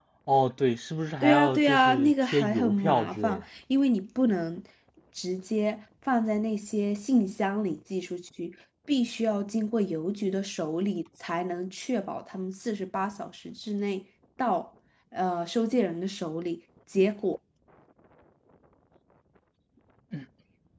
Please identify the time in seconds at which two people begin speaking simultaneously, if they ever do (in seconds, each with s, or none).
1.2 s